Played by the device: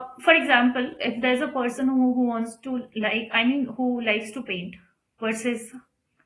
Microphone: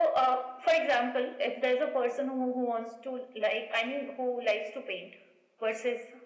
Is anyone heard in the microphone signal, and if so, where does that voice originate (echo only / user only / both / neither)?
echo only